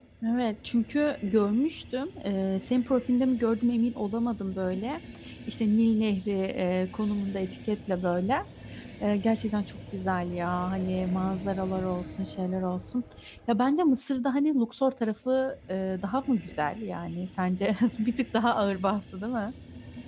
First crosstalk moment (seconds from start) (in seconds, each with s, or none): none